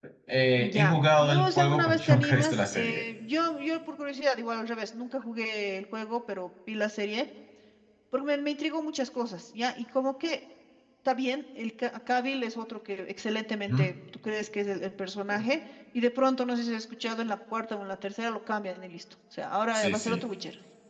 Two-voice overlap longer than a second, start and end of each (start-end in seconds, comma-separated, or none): 0.6-3.0